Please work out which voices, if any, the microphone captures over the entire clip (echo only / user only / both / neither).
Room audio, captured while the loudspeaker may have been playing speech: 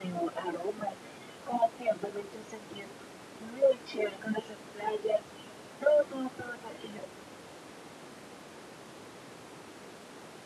echo only